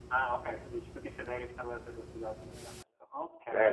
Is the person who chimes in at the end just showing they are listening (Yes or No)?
No